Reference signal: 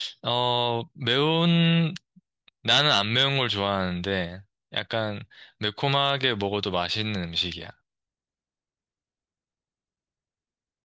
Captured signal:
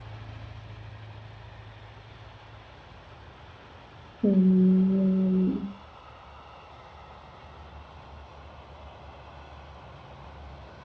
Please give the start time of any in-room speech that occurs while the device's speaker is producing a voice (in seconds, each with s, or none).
4.2 s